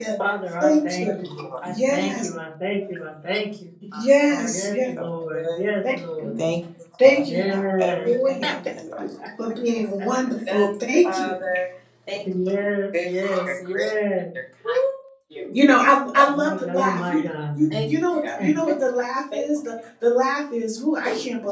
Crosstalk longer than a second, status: present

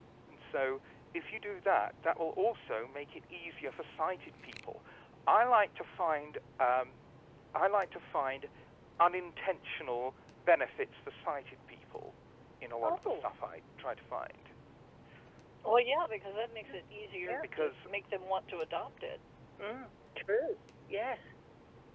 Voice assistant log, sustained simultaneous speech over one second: none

